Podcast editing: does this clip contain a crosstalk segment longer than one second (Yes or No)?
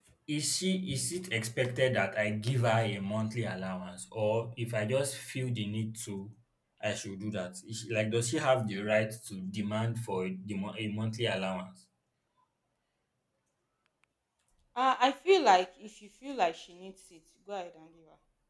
No